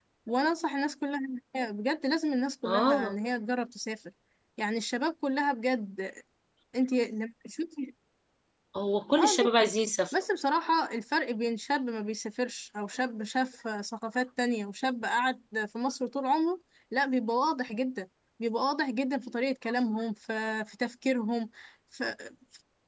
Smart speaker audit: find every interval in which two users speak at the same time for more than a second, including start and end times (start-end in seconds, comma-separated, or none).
none